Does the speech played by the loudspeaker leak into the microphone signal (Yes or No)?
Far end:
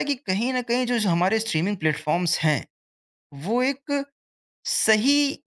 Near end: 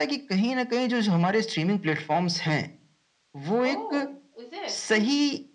Yes